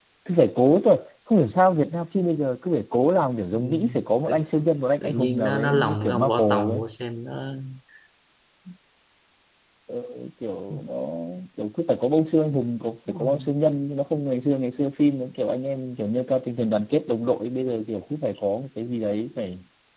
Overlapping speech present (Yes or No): Yes